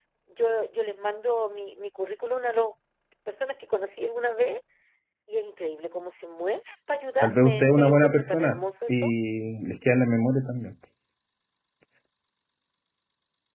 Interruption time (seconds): 7.2 s

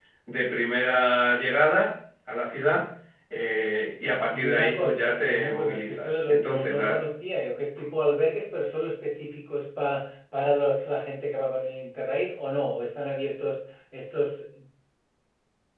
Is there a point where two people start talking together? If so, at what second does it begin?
4.3 s

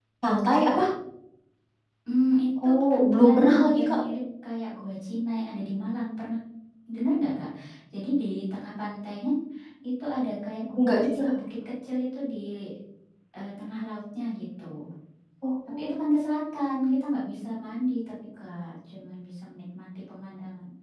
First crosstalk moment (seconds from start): 2.6 s

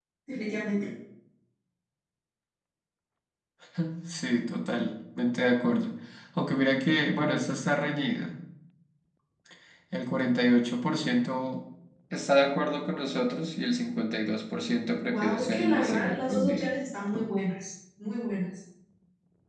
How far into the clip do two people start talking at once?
15.1 s

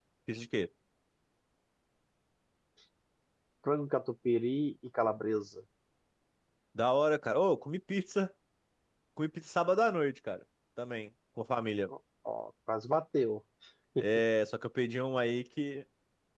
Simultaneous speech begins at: none

